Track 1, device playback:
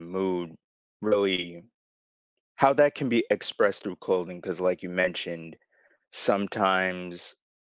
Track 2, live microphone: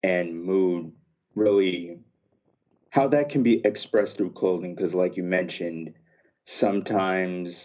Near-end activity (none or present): none